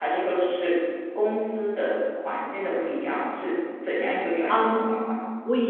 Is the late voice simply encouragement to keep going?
No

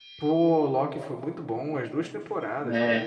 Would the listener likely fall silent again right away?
Yes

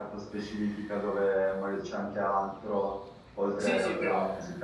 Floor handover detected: Yes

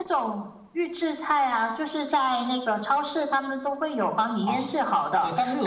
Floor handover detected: Yes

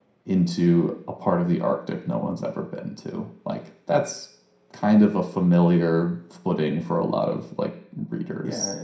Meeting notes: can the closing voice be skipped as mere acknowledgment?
No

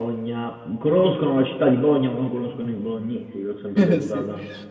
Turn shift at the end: Yes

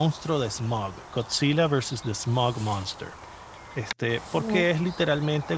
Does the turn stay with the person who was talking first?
Yes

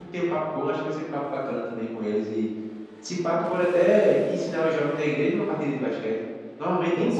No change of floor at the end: No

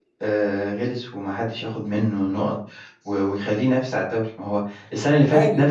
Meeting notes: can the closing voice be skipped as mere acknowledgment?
Yes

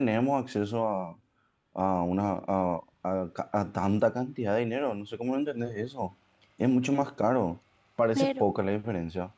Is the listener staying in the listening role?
Yes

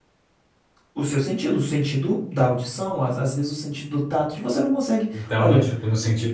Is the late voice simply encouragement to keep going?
No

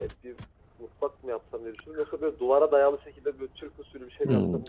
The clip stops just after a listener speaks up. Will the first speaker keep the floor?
No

